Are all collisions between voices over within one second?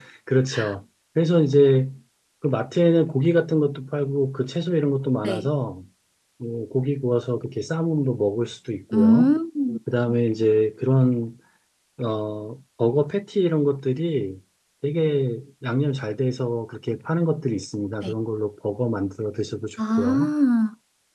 Yes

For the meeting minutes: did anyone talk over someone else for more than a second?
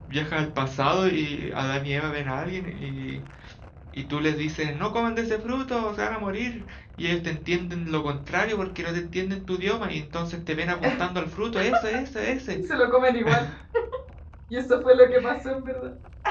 No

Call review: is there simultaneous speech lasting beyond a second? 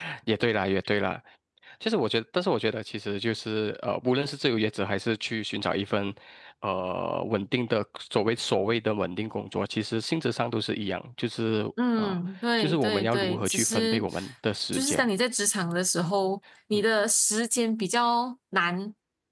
Yes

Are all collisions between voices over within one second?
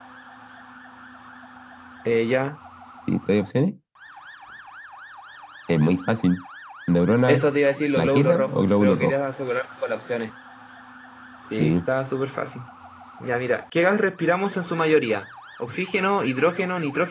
No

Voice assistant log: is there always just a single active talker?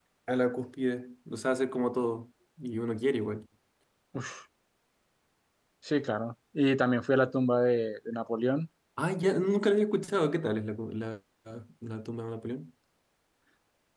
Yes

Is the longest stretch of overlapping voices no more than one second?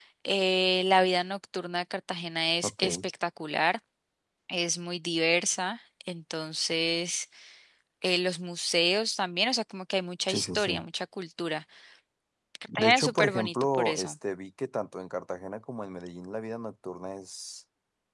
No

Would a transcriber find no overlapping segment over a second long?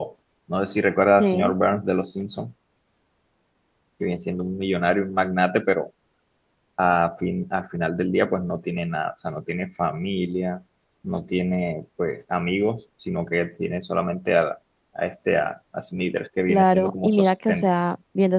No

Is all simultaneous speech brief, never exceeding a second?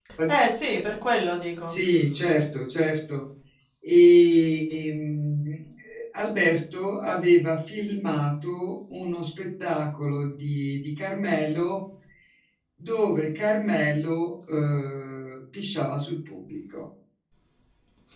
Yes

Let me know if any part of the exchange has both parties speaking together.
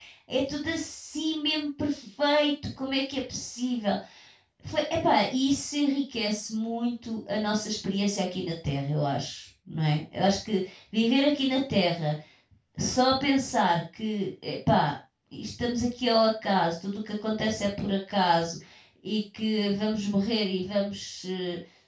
No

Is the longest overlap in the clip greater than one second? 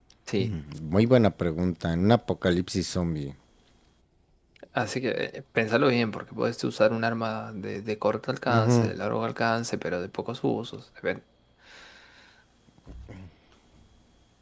No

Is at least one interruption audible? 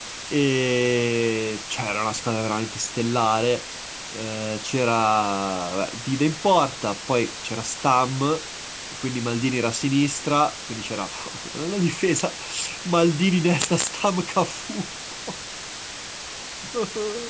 No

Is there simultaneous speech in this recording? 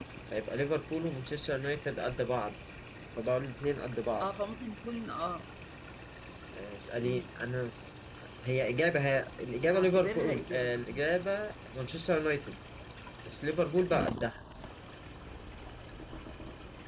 Yes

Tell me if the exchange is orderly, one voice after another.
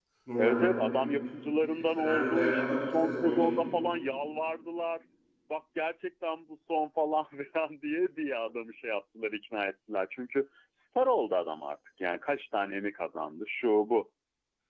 No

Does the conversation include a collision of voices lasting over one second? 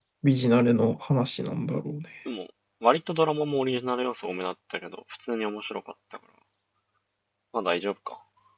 No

